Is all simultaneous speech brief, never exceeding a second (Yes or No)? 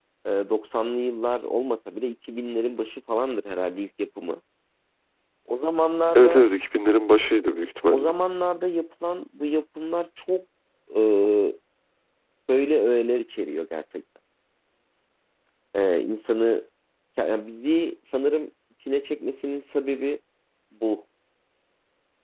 Yes